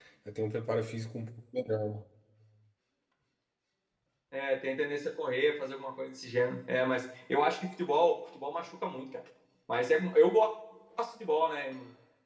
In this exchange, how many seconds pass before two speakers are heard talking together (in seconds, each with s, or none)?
none